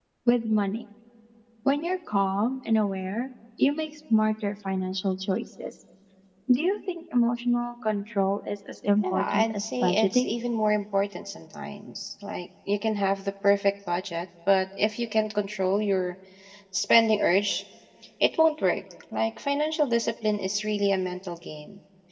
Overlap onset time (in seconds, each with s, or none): 9.0 s